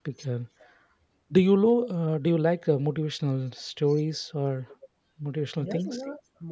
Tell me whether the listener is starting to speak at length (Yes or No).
Yes